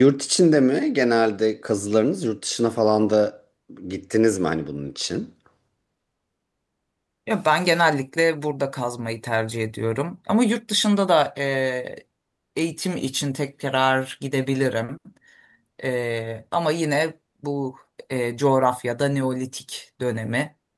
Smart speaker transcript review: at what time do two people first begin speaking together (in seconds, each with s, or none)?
none